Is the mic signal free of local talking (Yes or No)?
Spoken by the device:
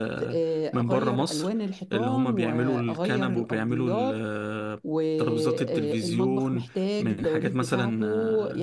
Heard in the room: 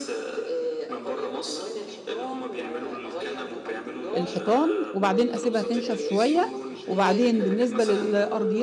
No